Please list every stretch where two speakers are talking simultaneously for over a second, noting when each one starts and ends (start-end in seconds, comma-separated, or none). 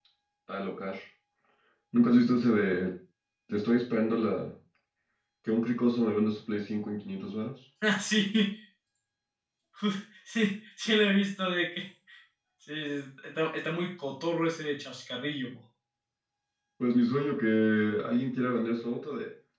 none